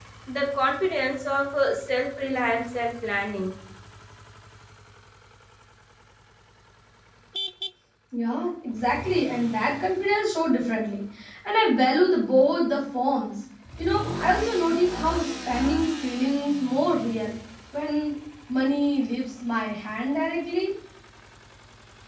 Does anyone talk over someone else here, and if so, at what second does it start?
none

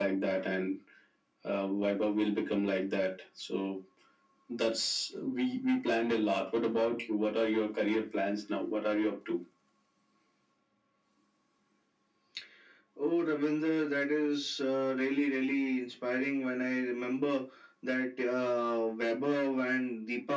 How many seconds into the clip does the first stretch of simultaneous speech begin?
none

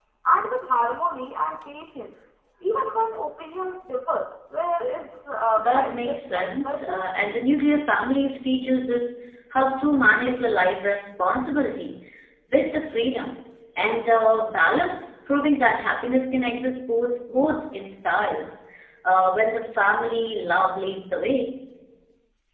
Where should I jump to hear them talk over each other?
5.6 s

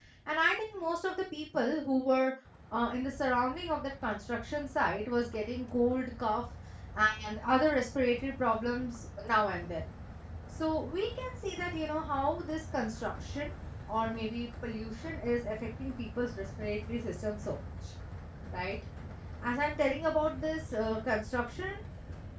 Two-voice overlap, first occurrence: none

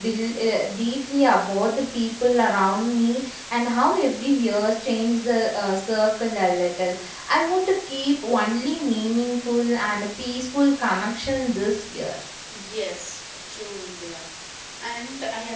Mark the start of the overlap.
none

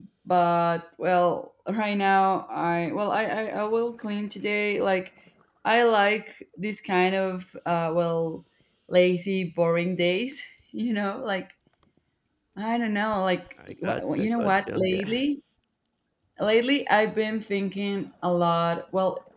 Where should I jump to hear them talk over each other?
13.8 s

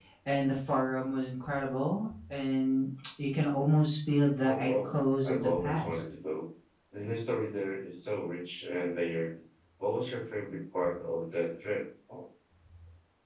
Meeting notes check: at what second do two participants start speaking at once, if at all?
4.4 s

